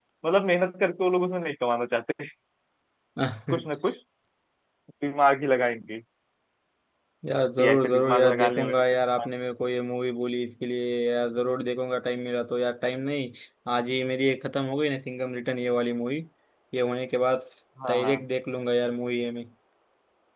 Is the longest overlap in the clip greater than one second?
Yes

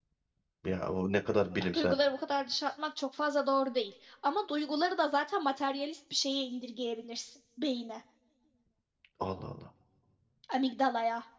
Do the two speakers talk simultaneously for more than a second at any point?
No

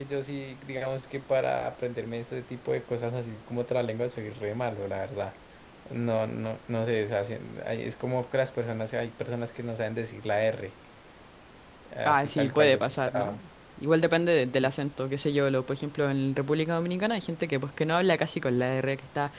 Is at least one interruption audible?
Yes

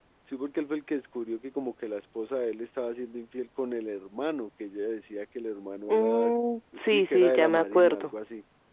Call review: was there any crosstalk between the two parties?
Yes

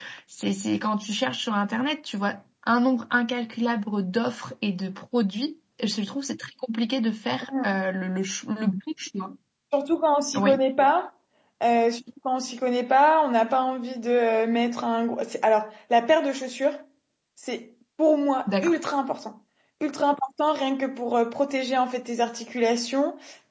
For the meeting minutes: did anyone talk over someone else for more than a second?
No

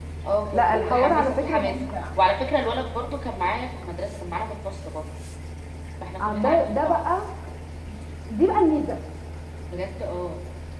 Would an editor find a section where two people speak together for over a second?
Yes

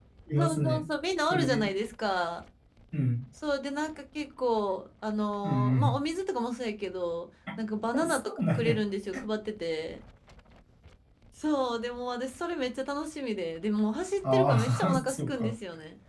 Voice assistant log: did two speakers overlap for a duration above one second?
Yes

